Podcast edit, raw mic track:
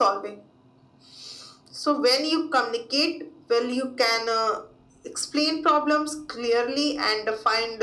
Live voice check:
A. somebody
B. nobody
B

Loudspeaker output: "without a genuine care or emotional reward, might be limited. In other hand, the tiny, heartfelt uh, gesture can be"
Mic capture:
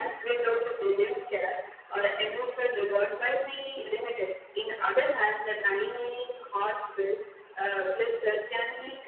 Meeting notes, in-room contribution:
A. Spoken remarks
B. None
B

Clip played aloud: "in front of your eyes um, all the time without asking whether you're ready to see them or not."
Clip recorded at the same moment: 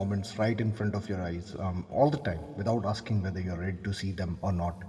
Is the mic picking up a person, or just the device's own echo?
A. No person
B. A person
A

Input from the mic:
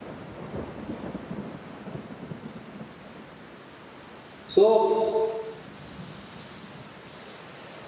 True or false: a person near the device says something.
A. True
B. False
A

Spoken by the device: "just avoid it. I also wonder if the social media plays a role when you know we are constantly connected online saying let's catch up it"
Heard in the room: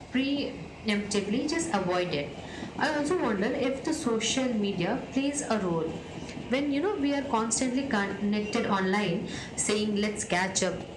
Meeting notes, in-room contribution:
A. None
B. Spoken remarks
A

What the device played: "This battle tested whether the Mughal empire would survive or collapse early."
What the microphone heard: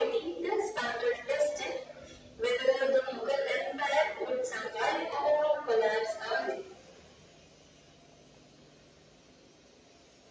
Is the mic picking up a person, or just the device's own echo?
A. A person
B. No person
B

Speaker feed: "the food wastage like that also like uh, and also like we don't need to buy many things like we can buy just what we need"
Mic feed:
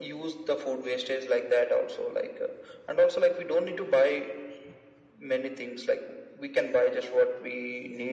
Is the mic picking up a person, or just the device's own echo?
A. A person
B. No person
B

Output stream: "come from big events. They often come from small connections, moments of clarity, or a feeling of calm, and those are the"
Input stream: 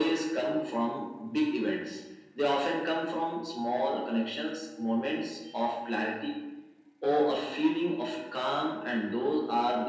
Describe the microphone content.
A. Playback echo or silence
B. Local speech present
A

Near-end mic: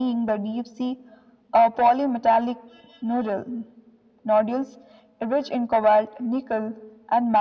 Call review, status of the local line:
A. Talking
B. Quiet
B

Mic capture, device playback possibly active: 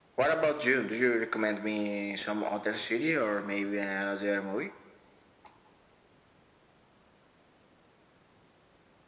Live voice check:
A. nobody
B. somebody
A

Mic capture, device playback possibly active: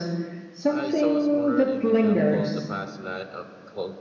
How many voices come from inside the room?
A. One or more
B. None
A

